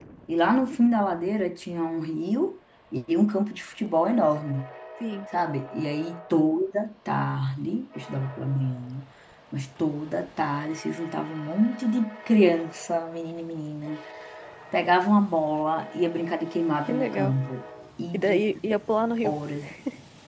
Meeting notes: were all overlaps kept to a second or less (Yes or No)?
Yes